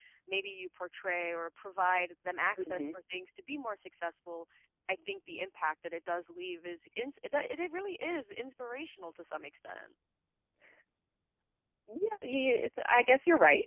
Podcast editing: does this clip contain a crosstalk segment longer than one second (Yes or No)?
No